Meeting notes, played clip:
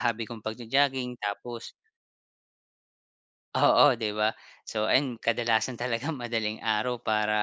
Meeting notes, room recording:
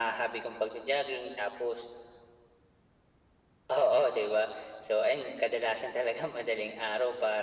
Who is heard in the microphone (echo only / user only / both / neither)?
echo only